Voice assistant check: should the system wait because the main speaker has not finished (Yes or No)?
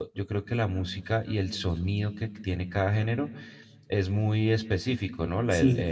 Yes